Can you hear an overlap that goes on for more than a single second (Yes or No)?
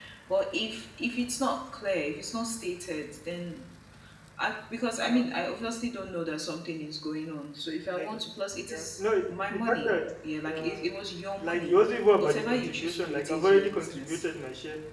Yes